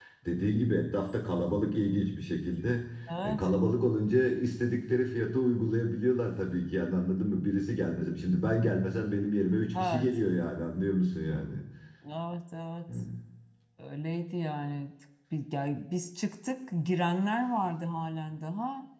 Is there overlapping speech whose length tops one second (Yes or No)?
No